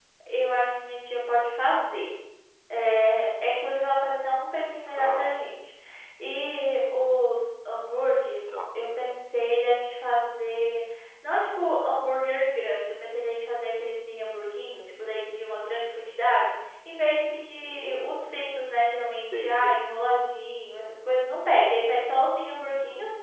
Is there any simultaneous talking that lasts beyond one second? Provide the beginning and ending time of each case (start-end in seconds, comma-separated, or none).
none